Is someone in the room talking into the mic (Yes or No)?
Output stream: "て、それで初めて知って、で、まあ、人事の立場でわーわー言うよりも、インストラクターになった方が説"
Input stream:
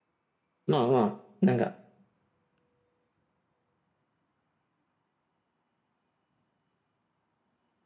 Yes